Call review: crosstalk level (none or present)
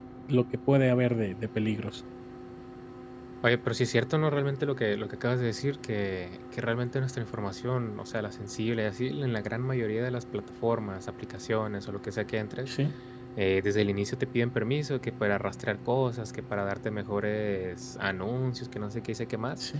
none